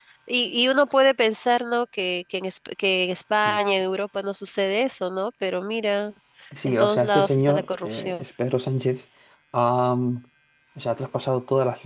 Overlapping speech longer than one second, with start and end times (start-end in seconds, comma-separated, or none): 6.6-8.2